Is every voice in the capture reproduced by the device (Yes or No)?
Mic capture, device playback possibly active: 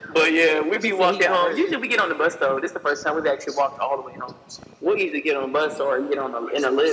No